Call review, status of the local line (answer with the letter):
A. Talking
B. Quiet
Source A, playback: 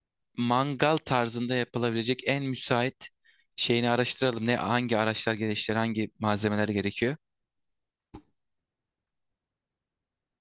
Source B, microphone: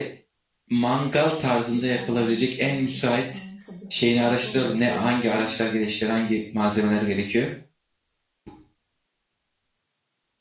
A